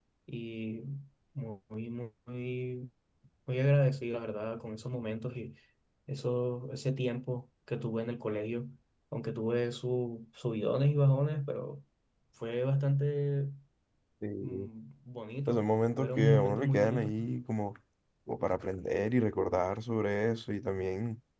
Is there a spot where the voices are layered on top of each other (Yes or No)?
Yes